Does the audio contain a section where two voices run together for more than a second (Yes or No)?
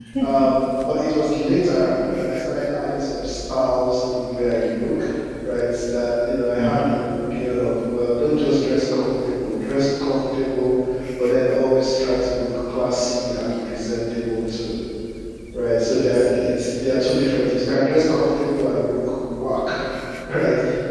Yes